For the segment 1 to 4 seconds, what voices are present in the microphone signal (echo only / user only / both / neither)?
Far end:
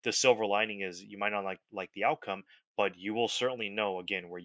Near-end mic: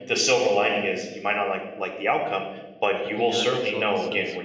both